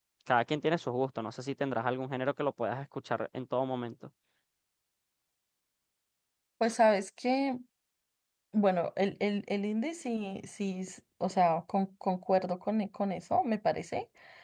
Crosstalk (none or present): none